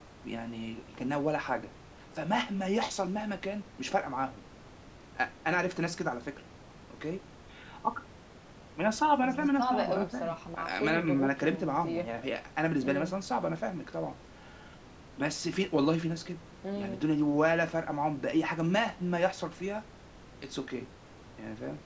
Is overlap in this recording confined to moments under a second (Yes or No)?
No